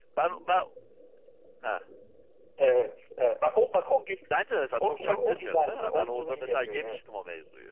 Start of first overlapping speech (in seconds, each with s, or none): 4.8 s